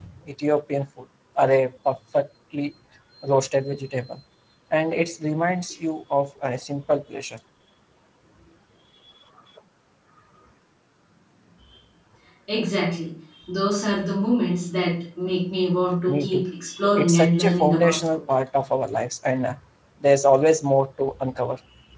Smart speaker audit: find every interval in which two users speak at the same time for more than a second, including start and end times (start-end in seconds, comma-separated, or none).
17.0-18.2